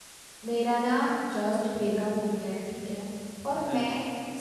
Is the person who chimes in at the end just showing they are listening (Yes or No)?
Yes